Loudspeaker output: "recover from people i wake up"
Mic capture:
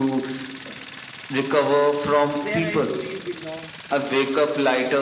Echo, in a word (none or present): present